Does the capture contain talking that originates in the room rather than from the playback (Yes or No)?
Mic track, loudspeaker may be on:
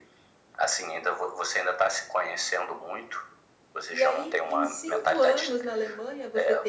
Yes